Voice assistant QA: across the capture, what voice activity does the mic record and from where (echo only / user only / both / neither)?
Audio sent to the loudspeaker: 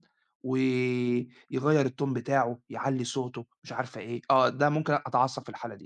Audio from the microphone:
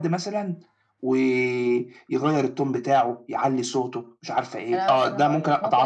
both